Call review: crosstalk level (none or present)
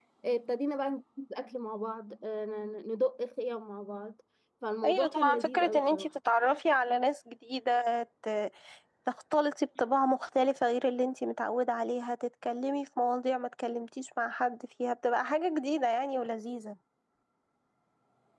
present